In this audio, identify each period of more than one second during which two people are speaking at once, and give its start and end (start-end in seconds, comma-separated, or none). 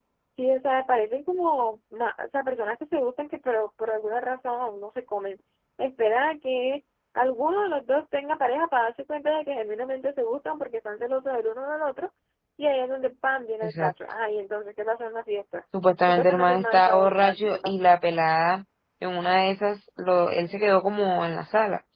16.1-17.7